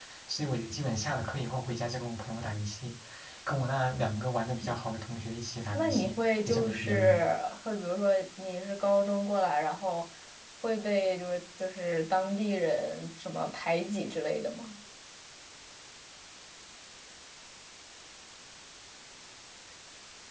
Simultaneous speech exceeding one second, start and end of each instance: 5.7-7.2

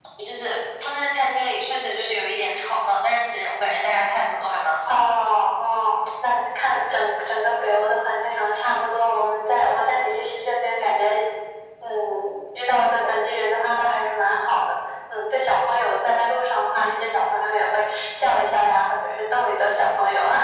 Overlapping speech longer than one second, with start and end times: none

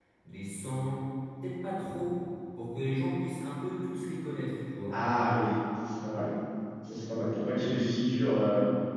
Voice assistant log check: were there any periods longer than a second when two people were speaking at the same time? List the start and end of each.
none

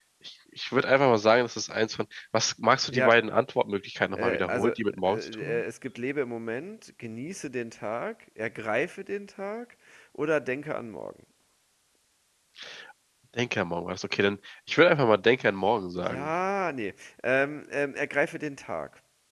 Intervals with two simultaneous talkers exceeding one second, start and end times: 4.2-5.6

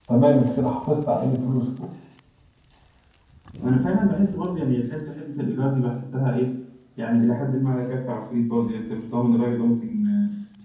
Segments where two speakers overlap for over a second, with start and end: none

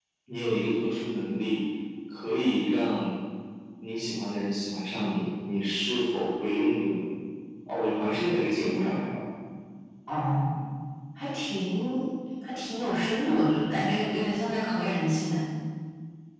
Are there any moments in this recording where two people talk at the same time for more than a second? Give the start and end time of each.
none

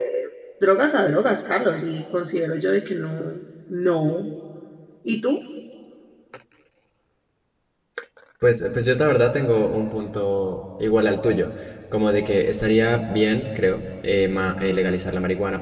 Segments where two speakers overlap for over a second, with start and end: none

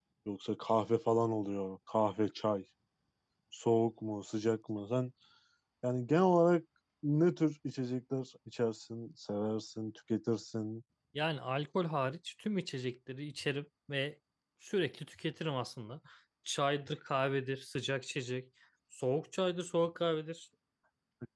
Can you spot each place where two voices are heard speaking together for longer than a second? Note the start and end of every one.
none

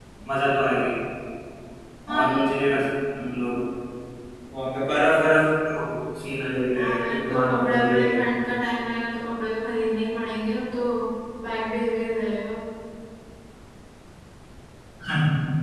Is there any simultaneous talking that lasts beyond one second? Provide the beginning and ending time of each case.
6.8-8.2

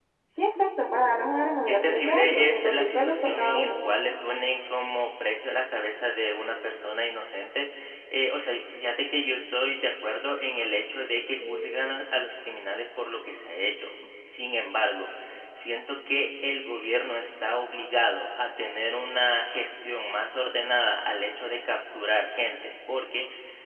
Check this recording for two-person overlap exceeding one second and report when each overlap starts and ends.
1.7-3.7

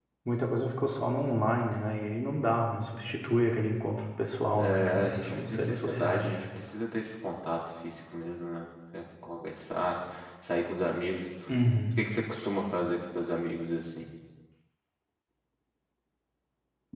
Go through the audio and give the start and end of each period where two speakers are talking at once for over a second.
4.6-6.4

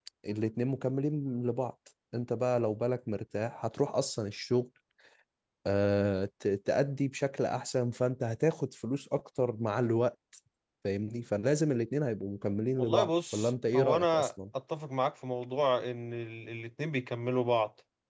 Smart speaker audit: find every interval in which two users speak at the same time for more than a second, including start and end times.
12.8-14.3

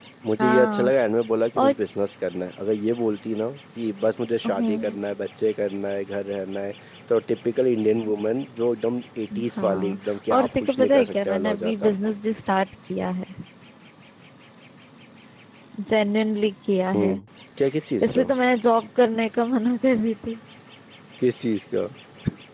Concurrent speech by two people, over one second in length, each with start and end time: 9.6-11.9

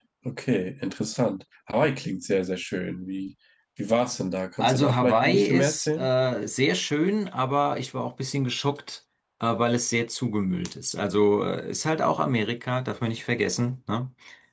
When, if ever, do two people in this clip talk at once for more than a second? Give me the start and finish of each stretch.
4.6-6.1

